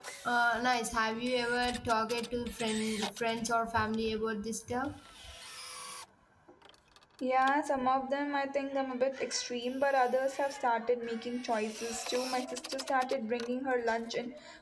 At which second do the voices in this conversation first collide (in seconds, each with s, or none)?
none